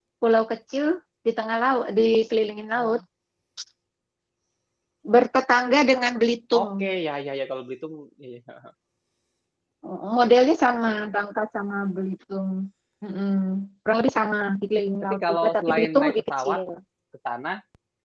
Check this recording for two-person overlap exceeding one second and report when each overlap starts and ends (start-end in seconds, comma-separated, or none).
15.0-16.6